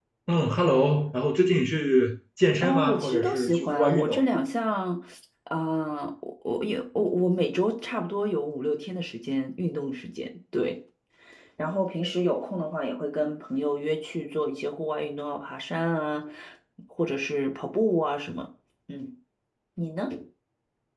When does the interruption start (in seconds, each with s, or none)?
2.6 s